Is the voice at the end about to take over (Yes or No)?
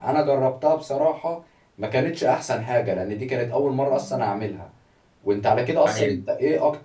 No